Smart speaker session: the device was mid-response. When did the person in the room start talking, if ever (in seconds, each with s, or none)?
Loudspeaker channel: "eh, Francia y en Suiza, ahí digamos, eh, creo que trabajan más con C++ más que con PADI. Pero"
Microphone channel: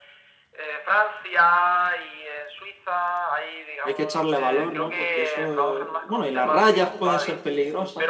3.8 s